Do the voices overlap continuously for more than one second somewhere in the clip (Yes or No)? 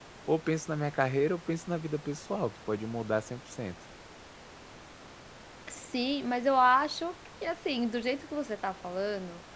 No